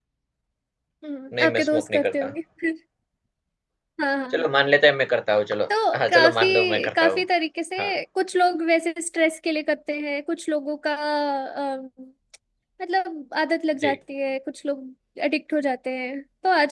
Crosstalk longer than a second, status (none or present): present